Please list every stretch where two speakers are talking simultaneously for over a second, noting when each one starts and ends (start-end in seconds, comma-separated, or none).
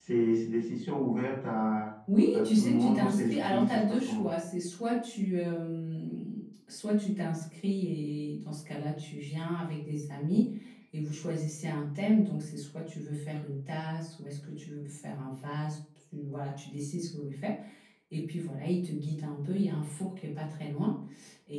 2.3-4.2